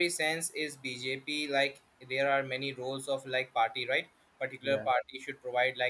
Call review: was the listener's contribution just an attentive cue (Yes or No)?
Yes